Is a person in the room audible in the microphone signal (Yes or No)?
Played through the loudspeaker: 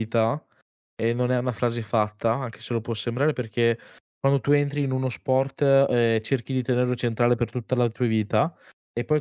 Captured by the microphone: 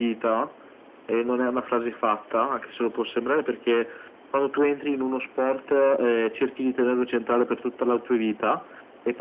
No